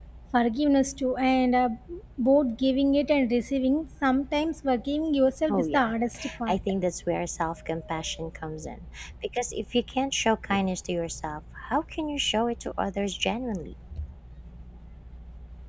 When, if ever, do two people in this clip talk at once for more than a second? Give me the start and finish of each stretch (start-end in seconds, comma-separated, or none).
none